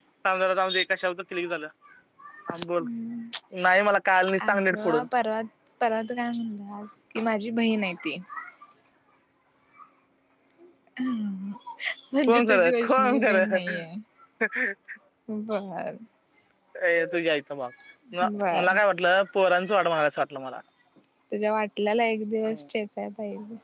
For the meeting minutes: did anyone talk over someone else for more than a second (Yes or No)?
Yes